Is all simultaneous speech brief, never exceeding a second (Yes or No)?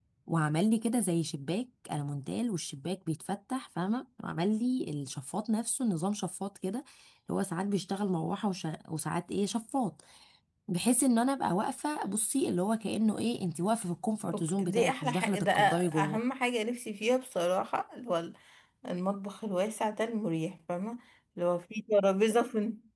No